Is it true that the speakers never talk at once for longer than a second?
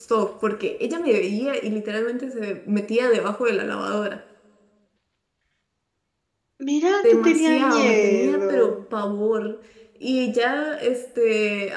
No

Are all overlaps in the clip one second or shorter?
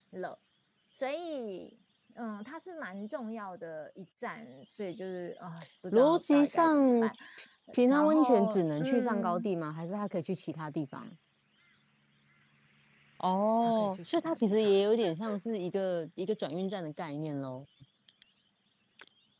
No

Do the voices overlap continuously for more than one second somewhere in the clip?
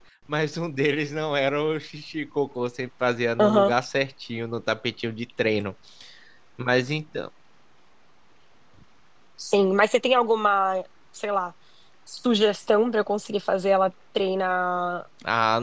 No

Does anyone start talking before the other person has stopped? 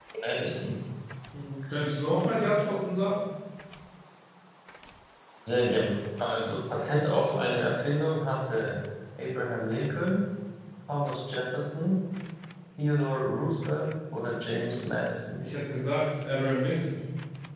No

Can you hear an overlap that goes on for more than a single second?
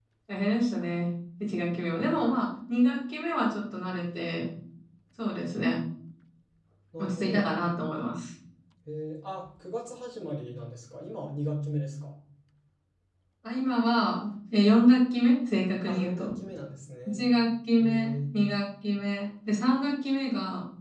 No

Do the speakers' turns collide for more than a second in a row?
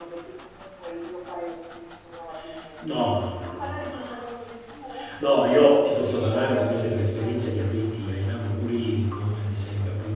Yes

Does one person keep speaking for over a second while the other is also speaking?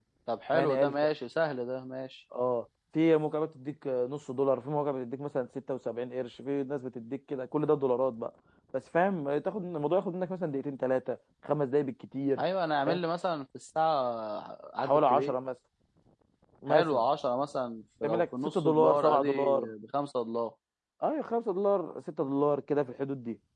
Yes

